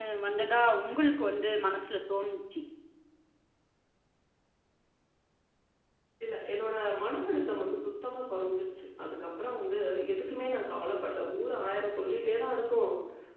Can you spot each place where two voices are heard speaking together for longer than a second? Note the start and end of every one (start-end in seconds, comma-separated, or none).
none